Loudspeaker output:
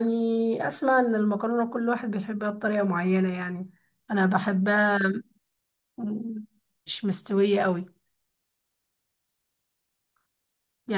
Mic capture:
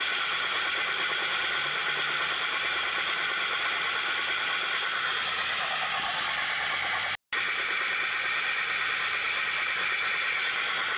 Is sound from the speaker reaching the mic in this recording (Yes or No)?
No